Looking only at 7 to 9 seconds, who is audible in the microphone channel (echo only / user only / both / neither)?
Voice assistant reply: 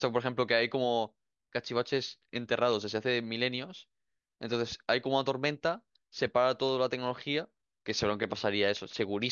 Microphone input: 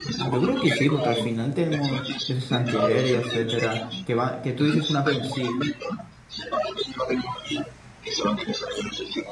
echo only